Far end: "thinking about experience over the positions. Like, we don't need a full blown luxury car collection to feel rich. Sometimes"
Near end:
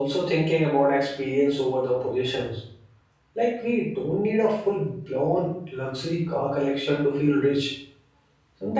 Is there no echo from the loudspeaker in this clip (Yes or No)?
No